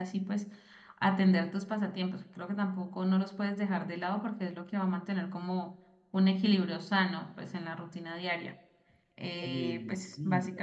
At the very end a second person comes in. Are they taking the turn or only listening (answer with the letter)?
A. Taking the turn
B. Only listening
A